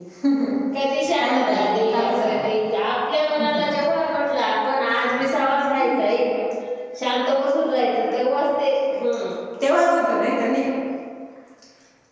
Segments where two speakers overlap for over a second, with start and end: 1.2-2.4

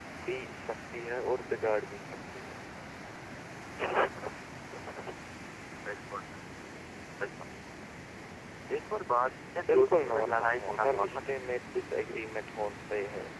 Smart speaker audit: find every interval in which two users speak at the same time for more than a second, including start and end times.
9.7-11.2

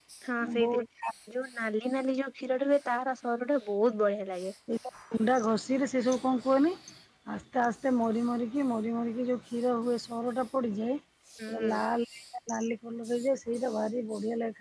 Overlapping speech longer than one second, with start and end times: none

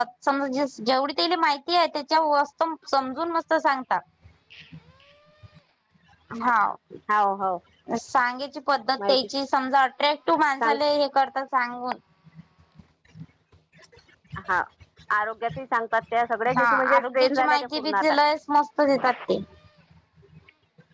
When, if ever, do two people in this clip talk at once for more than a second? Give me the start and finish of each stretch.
16.6-18.0

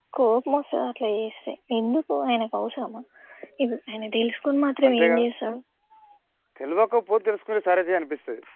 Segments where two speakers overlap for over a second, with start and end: none

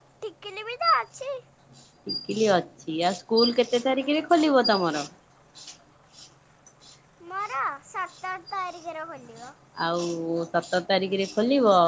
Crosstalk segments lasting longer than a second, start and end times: none

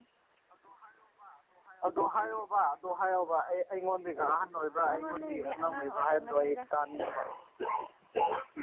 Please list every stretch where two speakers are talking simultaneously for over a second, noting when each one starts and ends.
4.9-6.6

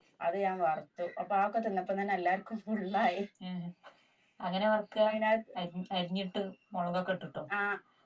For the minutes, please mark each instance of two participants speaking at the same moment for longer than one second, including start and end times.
none

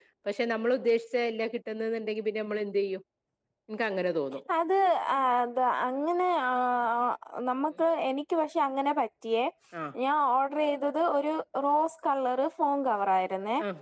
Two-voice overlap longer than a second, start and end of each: none

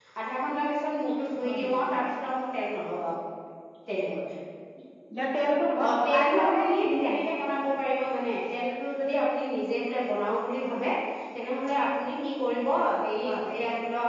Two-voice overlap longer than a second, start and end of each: 5.9-7.2

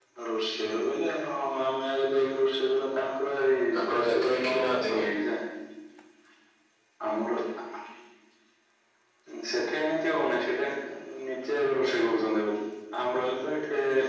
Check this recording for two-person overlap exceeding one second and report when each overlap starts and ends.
3.7-5.0

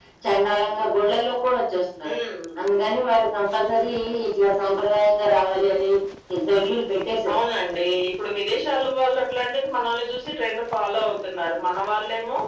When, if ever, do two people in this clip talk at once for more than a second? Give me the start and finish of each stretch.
none

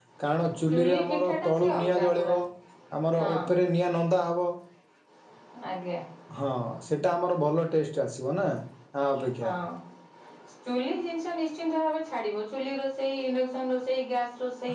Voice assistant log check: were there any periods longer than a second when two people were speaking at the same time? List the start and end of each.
0.7-2.4

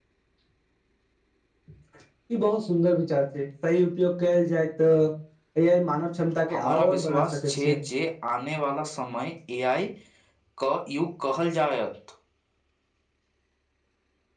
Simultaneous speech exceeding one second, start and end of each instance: 6.5-7.8

